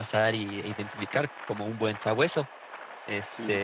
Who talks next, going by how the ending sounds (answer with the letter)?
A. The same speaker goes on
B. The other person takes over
A